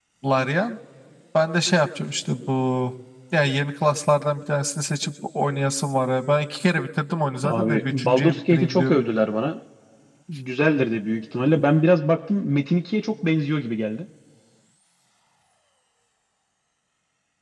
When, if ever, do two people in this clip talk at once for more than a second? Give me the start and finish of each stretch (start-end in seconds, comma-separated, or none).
7.4-9.0